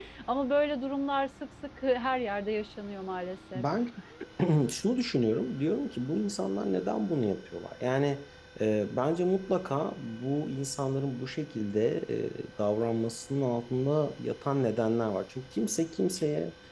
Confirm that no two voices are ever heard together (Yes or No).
Yes